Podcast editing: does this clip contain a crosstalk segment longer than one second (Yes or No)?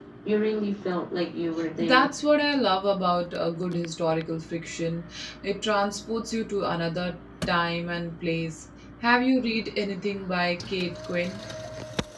No